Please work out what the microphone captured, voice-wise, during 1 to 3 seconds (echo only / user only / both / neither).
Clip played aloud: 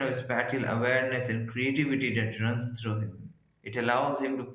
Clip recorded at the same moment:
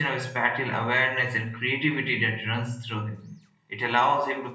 echo only